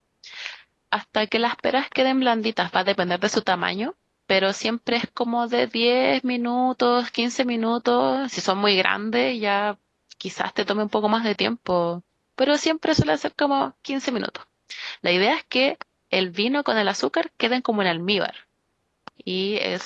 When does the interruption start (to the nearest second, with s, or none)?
none